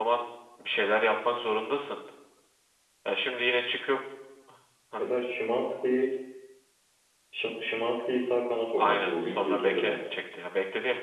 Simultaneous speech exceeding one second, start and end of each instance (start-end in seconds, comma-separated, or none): 8.8-10.0